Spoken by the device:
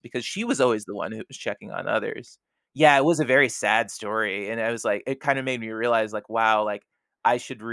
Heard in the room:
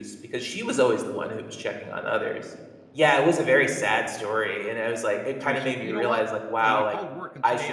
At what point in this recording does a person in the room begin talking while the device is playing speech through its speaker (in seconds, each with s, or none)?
5.4 s